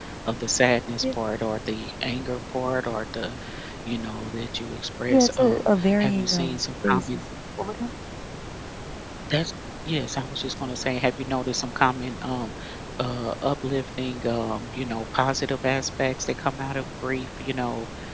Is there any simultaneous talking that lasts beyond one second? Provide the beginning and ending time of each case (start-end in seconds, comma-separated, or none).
5.1-7.2